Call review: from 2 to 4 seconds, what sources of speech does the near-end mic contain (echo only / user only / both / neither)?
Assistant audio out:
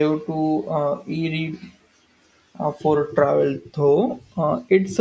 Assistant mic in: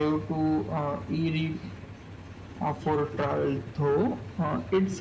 echo only